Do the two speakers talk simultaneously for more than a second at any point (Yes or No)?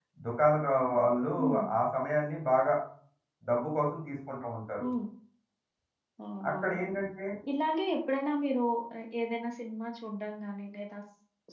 No